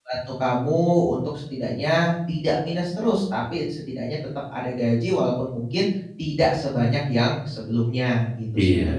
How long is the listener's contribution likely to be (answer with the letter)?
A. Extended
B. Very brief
A